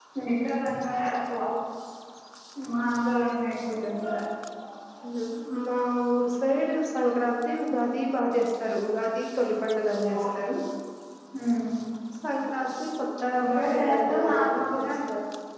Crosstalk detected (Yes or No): Yes